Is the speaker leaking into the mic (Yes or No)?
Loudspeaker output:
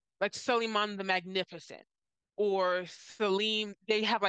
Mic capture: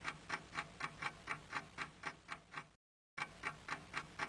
No